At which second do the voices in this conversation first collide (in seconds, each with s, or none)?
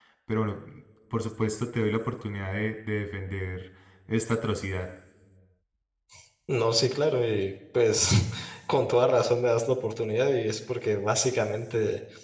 none